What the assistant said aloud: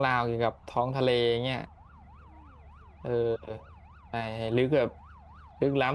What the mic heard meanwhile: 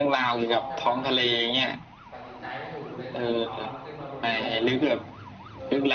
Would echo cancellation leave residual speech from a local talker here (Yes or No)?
Yes